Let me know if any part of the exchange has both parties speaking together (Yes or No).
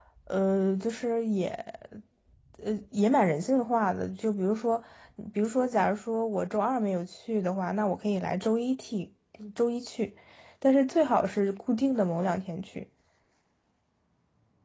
No